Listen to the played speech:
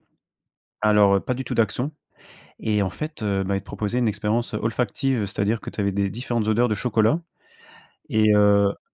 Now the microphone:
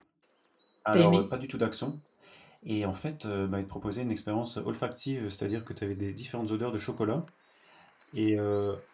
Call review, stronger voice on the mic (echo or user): user